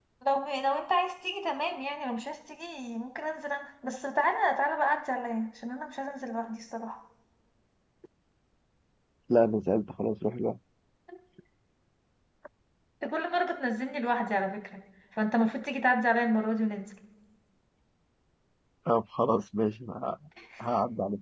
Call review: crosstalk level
none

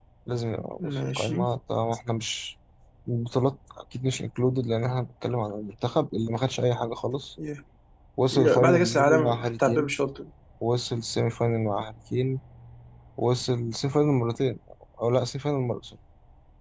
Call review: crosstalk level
present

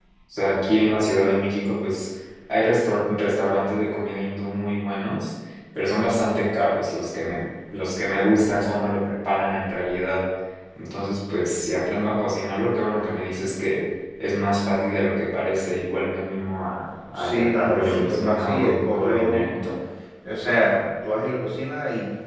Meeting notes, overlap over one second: present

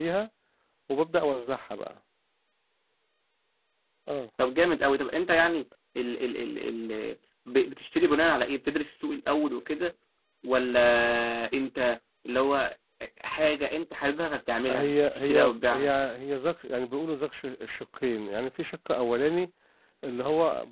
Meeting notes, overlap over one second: present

